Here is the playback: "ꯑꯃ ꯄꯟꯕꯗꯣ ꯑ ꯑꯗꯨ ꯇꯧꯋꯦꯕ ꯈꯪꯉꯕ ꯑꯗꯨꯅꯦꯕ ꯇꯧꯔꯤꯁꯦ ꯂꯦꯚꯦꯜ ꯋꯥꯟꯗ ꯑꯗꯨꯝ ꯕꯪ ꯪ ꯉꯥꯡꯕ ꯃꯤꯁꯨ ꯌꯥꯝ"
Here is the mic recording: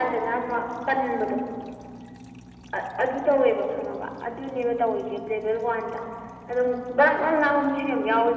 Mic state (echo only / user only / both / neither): echo only